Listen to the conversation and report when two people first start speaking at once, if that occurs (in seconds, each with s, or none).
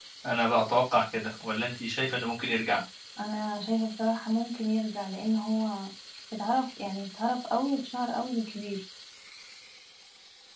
none